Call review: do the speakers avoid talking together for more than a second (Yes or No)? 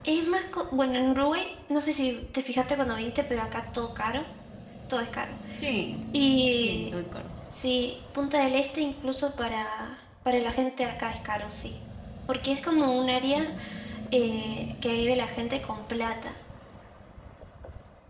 Yes